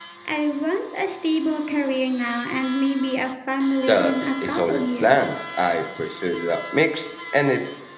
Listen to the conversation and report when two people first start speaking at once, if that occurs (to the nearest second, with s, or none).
4 s